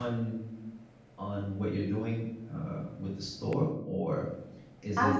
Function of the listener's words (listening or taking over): listening